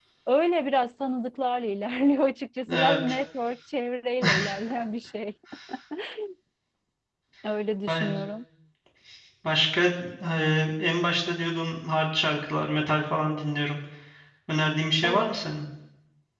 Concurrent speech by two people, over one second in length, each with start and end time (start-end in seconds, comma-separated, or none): none